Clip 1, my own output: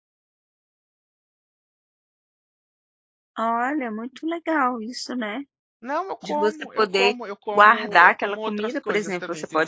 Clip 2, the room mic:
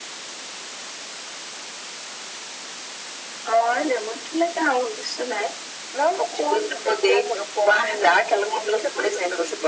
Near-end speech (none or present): none